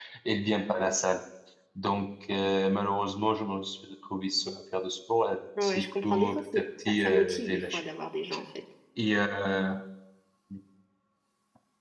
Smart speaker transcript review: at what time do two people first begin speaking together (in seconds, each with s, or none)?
5.5 s